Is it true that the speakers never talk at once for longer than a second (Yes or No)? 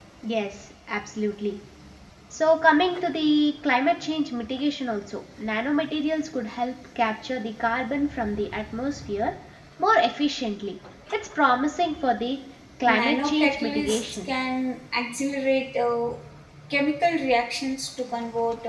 No